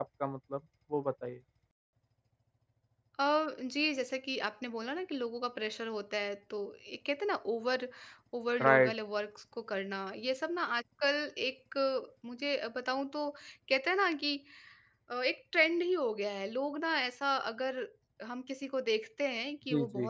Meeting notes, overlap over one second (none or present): none